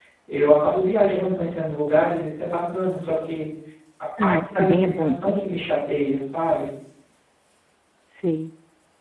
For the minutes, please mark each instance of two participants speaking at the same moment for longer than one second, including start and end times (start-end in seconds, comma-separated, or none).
4.2-5.4